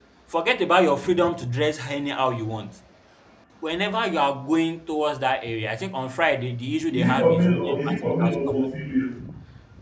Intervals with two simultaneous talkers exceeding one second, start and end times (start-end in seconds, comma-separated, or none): 6.9-8.7